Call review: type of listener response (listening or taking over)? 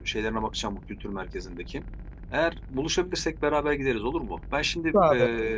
listening